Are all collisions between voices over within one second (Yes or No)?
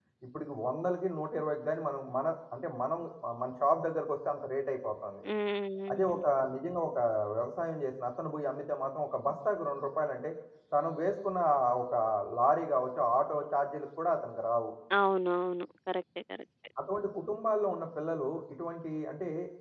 Yes